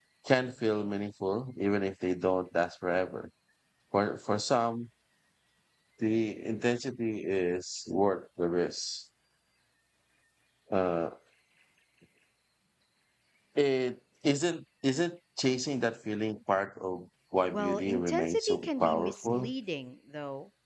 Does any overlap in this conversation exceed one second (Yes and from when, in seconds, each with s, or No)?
Yes, from 17.5 s